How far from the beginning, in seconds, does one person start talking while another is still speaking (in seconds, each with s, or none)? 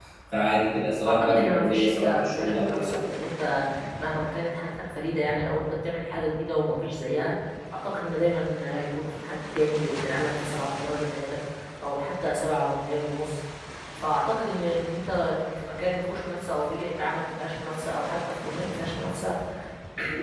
1.1 s